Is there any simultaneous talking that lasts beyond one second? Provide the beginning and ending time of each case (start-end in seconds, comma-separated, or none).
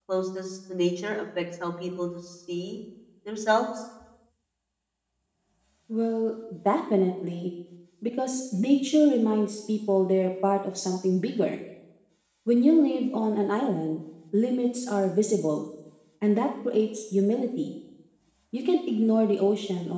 none